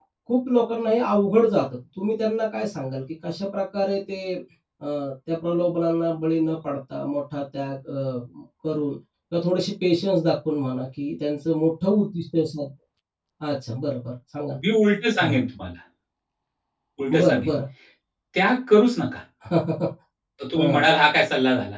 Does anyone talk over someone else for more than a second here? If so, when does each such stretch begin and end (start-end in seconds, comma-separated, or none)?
none